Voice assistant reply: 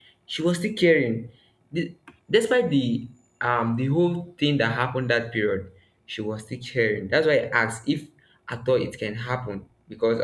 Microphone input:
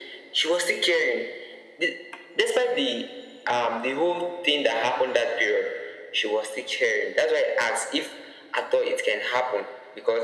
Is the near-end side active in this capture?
No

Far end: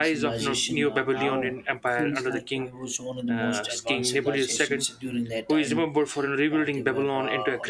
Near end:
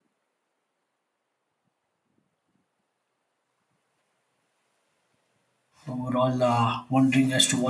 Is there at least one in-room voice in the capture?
Yes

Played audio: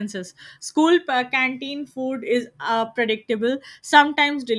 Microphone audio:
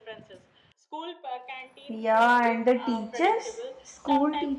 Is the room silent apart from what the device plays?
No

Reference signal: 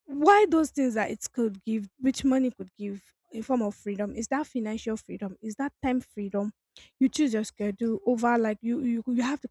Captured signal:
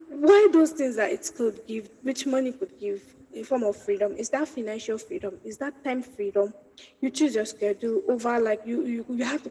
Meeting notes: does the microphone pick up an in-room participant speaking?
No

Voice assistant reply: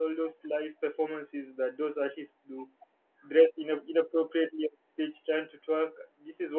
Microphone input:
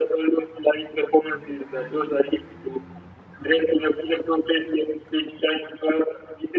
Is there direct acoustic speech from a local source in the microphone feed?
No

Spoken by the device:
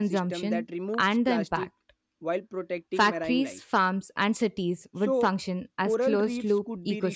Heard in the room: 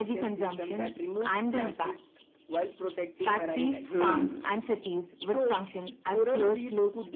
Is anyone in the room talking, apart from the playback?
Yes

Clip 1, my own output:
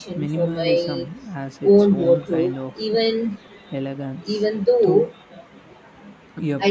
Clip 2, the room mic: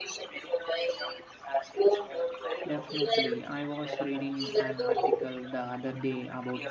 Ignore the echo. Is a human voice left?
Yes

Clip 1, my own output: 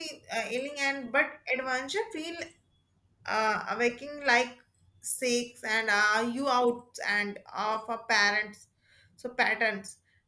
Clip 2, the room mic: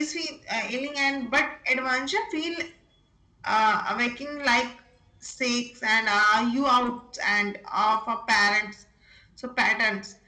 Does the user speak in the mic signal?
No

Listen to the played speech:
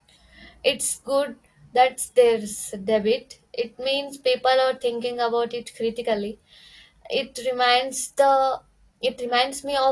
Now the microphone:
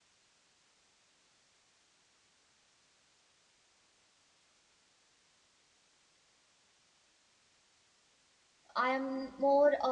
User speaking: Yes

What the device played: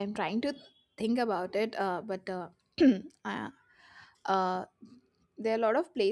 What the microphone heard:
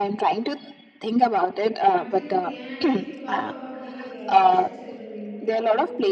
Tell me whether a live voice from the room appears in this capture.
Yes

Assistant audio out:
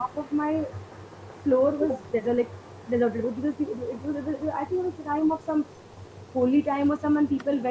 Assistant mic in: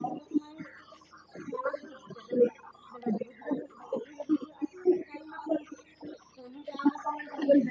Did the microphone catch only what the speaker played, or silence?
Yes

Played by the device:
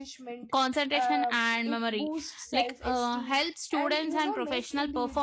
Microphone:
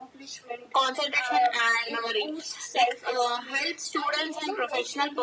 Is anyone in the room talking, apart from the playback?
No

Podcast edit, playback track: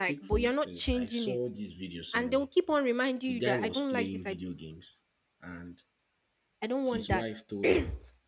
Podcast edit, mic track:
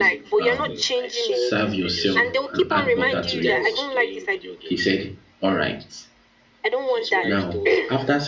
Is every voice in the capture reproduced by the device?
No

